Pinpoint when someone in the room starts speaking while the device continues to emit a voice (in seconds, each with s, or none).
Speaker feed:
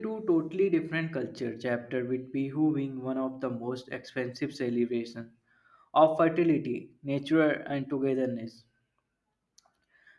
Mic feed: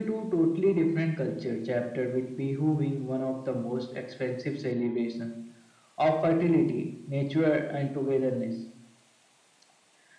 none